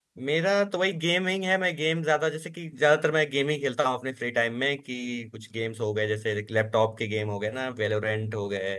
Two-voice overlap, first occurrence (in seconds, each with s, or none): none